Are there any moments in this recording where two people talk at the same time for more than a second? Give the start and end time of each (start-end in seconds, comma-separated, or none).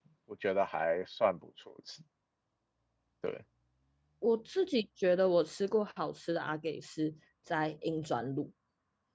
none